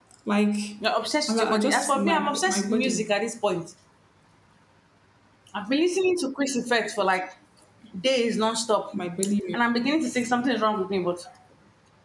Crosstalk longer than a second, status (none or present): present